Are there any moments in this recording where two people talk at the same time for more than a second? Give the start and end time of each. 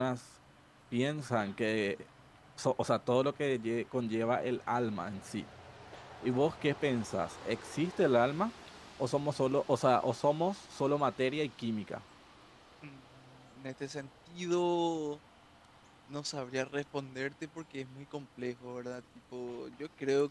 none

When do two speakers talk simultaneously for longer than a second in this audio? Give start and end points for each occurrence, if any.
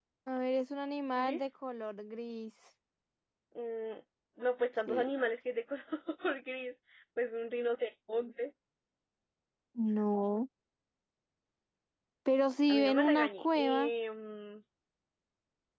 12.7-13.9

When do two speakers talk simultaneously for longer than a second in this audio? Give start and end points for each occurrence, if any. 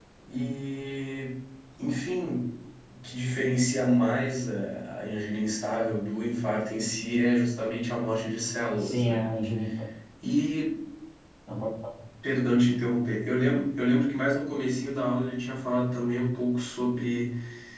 none

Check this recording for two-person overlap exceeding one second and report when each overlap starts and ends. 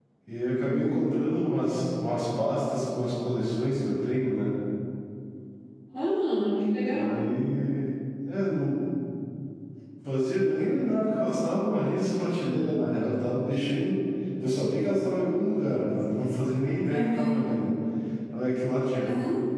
none

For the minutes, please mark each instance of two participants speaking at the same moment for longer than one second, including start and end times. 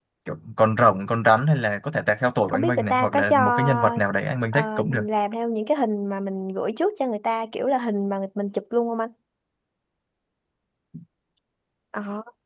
2.5-4.0

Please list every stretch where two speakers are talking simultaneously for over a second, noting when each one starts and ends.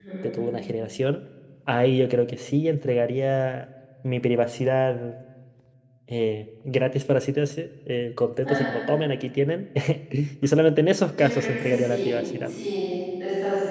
11.1-12.5

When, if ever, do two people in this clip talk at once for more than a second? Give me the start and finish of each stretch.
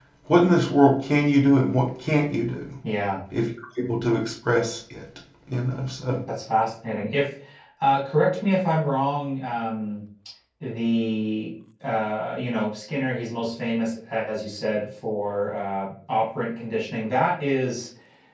none

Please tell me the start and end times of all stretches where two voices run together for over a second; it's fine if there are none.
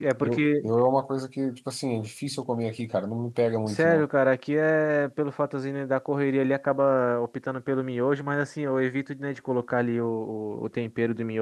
none

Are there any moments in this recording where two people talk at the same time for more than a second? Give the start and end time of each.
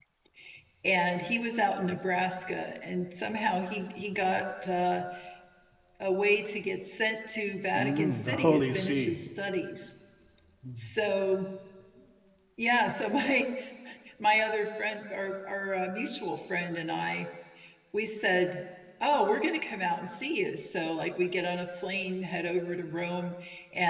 7.8-9.2

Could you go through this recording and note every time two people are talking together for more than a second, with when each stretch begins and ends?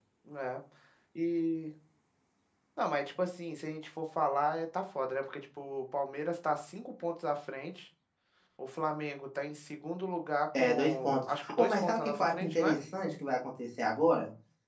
10.6-12.8

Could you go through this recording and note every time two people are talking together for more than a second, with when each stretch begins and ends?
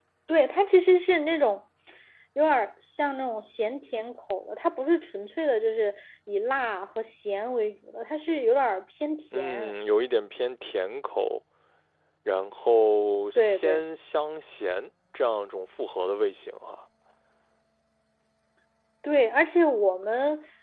none

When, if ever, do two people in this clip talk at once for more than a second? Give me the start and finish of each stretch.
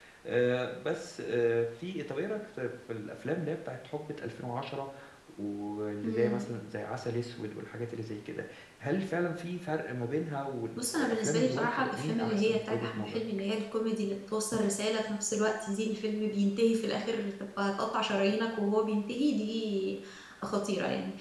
10.8-13.3

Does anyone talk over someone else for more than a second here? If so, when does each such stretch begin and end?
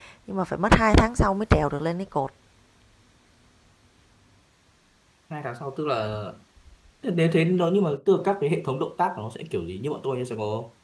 none

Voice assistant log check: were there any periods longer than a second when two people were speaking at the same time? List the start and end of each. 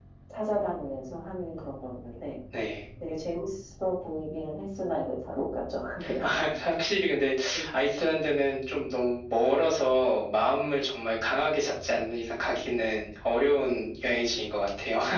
none

